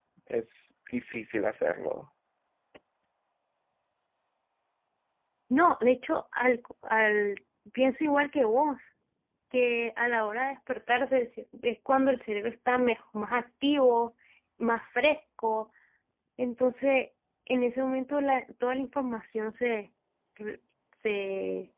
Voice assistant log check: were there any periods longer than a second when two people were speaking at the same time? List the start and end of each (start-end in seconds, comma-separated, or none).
none